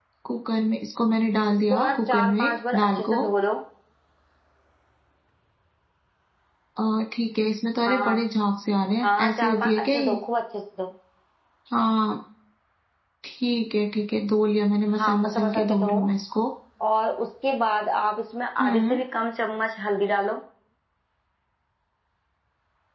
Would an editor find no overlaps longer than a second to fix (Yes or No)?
No